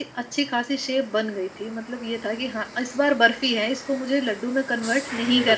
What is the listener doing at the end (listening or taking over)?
taking over